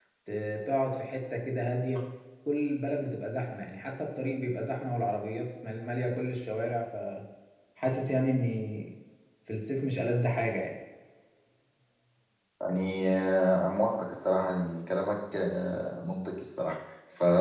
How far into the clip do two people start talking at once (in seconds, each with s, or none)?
none